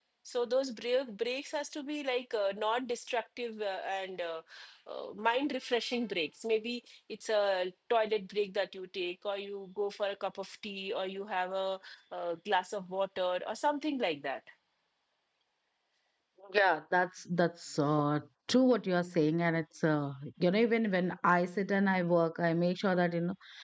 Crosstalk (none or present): none